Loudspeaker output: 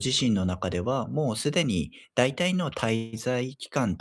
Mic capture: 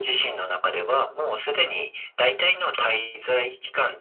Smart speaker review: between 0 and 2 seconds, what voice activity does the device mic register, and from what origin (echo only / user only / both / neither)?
echo only